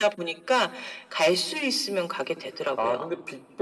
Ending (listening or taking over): taking over